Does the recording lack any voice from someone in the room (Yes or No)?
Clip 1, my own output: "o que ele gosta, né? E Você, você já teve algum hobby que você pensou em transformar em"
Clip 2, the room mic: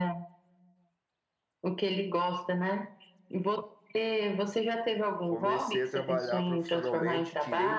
No